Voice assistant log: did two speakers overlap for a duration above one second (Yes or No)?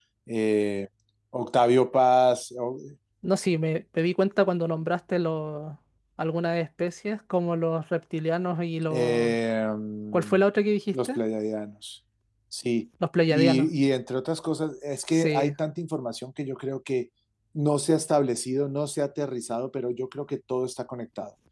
No